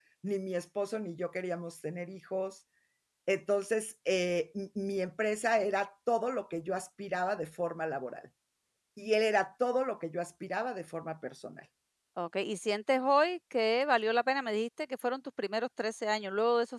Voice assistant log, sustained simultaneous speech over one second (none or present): none